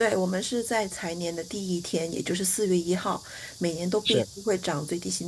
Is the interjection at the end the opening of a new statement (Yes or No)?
No